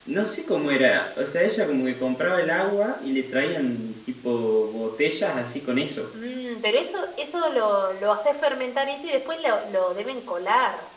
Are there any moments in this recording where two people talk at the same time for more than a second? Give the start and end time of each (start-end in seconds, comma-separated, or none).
none